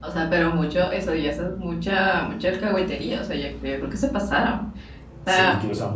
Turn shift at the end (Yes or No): Yes